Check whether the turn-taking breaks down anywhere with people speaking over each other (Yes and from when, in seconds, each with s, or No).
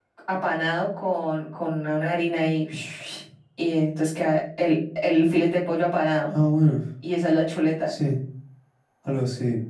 No